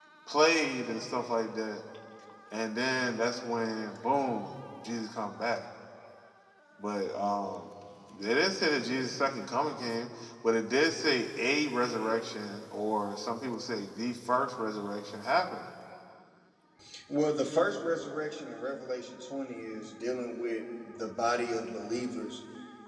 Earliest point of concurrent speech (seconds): none

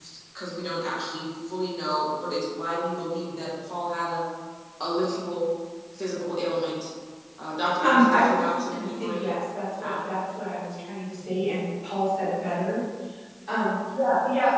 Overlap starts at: 8 s

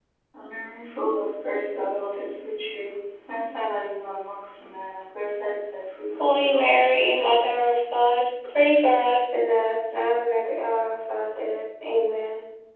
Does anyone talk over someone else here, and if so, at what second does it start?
6 s

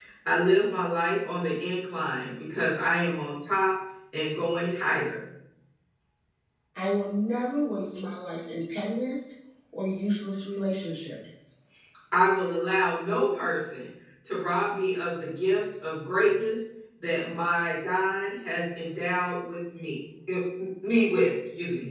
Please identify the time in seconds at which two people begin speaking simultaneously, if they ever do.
none

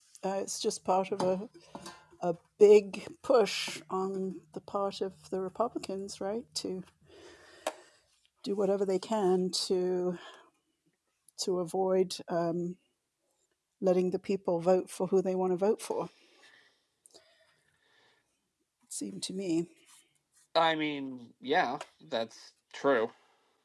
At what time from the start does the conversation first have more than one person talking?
none

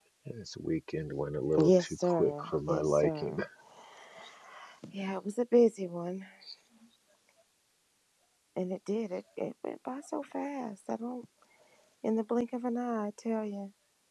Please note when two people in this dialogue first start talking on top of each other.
2 s

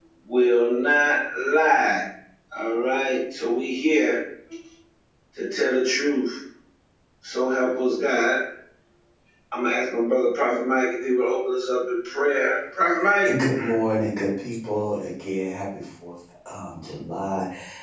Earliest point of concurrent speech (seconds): none

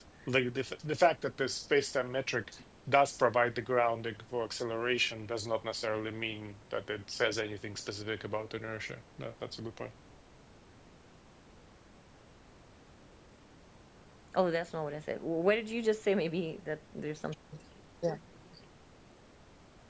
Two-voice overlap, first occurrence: none

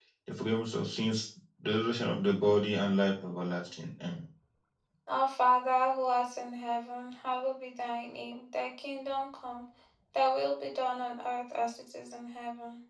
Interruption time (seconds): none

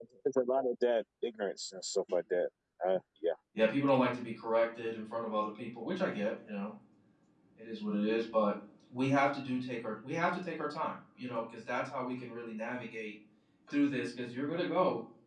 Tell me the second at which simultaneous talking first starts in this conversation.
none

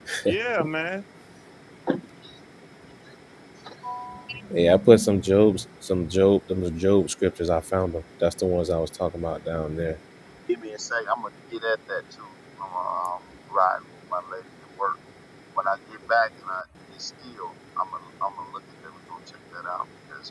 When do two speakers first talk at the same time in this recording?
none

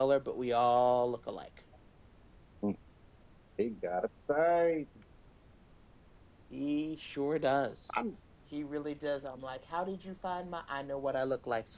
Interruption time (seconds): none

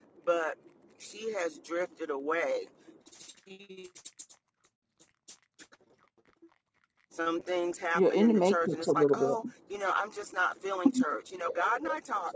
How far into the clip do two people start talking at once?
8 s

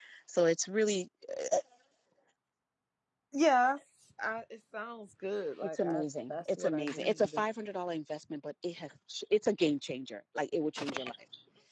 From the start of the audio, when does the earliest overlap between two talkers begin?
6 s

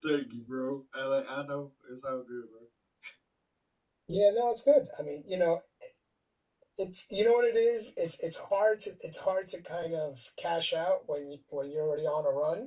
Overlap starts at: none

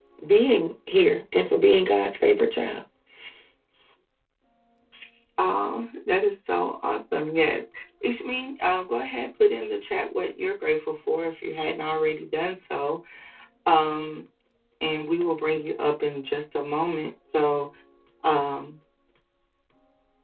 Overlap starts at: none

